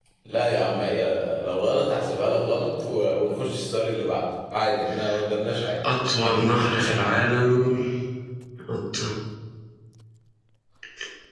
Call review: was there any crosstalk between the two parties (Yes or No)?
No